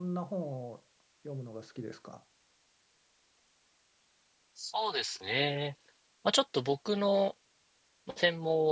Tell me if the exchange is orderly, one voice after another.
Yes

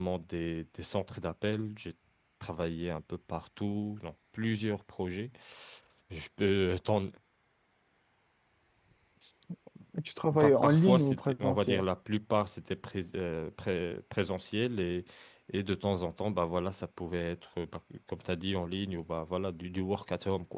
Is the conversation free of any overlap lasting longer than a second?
No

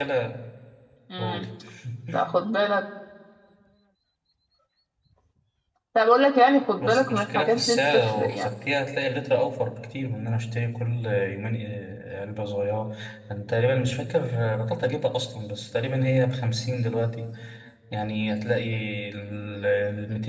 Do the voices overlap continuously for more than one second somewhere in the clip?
Yes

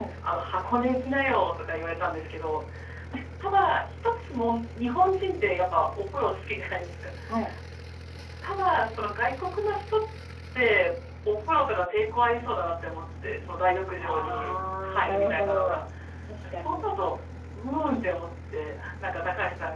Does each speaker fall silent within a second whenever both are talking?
No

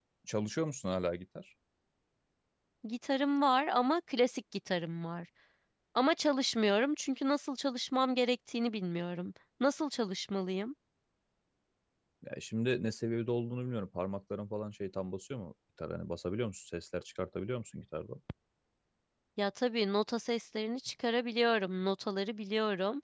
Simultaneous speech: No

